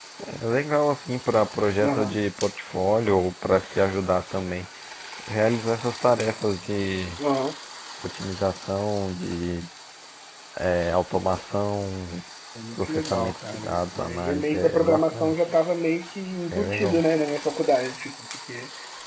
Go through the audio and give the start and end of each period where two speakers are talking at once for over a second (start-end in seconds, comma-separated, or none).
12.7-15.4